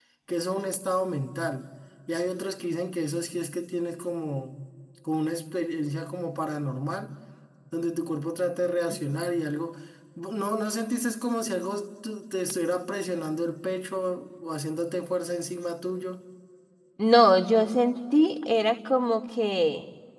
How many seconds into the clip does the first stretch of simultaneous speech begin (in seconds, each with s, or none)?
none